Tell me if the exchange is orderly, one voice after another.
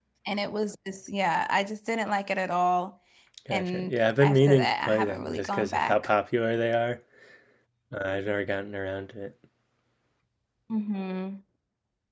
No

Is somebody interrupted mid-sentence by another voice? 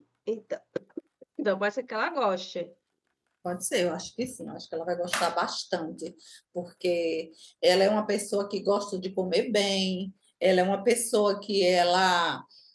No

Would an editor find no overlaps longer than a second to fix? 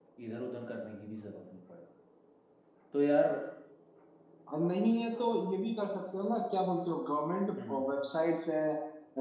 Yes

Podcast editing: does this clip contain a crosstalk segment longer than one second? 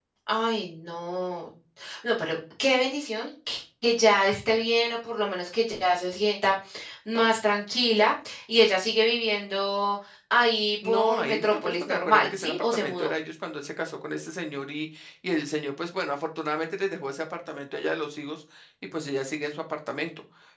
Yes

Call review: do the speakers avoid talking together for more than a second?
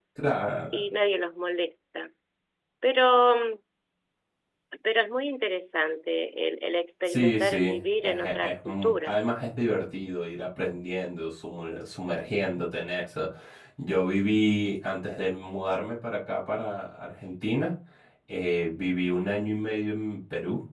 No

